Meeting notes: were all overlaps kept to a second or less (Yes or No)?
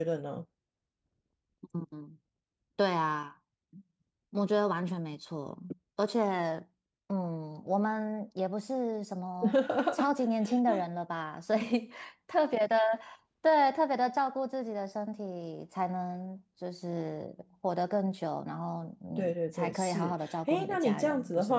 No